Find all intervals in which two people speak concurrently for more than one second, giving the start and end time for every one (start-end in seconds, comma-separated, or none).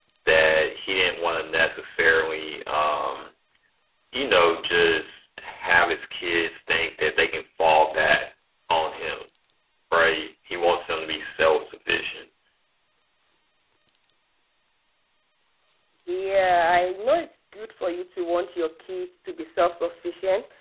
none